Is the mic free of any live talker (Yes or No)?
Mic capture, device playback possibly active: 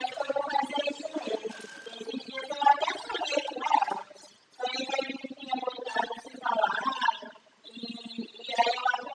Yes